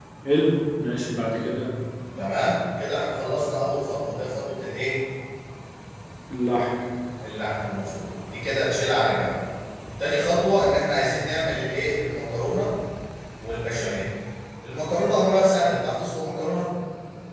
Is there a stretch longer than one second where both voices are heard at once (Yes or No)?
No